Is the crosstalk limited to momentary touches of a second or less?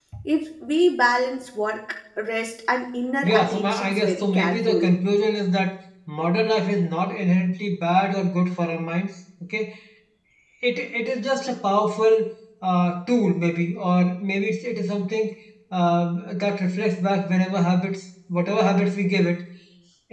No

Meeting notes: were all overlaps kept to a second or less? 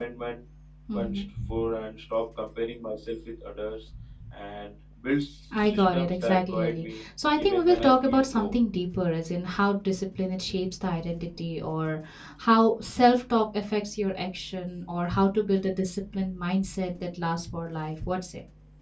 No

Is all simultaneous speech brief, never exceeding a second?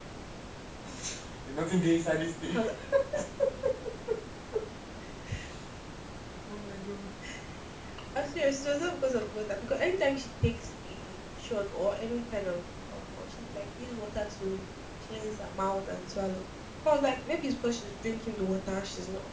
Yes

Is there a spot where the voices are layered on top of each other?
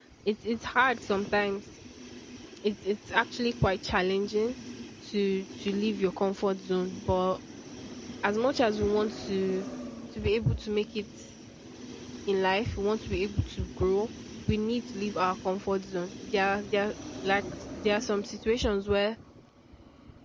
No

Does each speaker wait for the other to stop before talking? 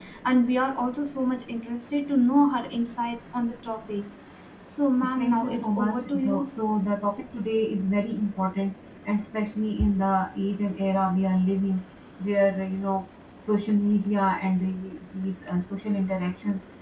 No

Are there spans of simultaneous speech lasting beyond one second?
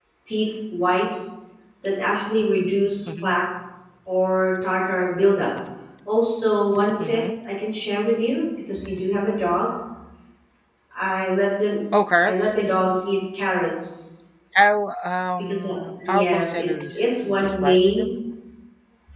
Yes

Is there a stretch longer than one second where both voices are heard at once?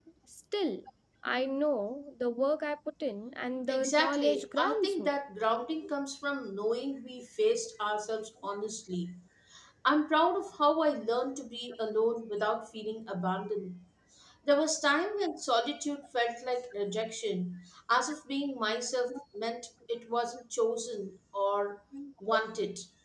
Yes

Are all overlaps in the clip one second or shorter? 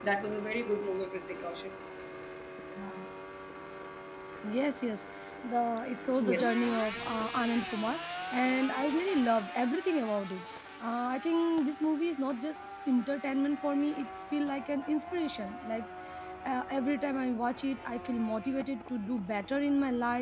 Yes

